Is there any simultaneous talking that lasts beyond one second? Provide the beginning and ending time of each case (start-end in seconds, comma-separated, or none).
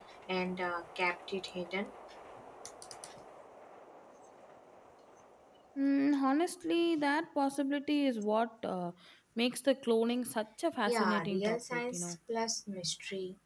10.9-12.2